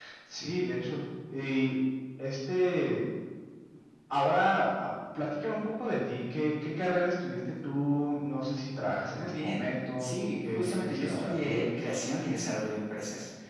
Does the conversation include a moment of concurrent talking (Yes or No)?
Yes